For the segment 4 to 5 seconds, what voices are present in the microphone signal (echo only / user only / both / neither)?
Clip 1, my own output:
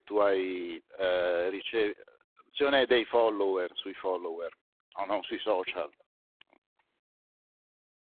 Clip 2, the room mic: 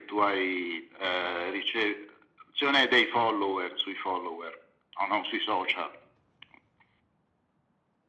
echo only